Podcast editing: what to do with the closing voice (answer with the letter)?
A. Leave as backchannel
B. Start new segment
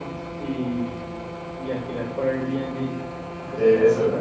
A